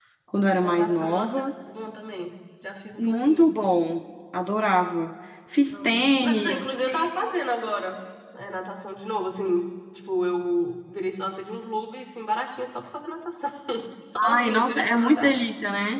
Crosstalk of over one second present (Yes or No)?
Yes